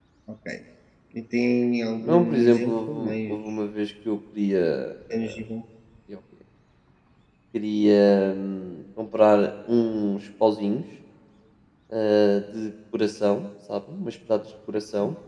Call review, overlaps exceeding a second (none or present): present